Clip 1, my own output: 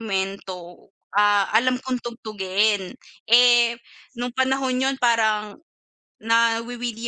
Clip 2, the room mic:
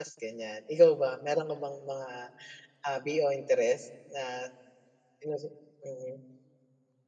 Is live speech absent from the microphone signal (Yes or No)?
No